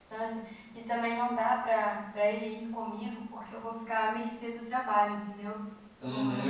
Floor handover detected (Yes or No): Yes